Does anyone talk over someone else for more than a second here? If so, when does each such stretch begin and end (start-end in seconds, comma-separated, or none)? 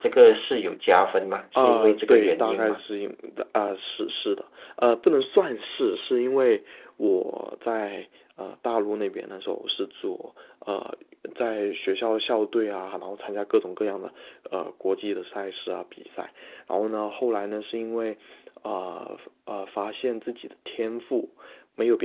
1.6-2.8